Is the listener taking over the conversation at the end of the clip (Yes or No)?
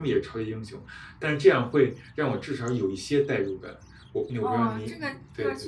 Yes